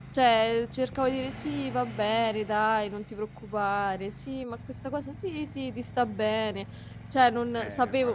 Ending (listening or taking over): taking over